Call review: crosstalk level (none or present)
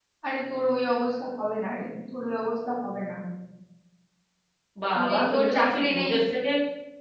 present